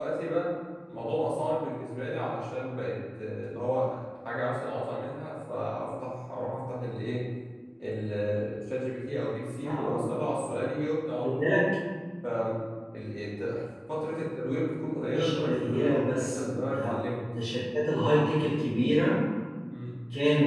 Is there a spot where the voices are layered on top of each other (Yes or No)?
Yes